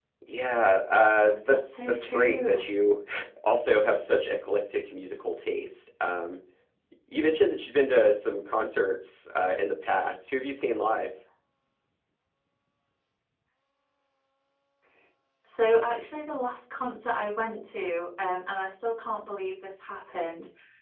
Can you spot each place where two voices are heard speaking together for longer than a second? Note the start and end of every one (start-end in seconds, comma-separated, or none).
1.2-2.6